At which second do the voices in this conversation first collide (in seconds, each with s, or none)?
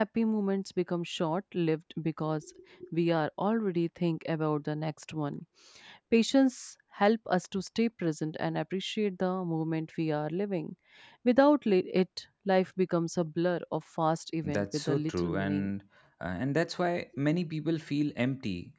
14.4 s